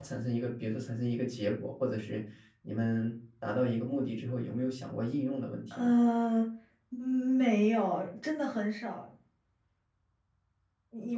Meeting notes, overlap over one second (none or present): none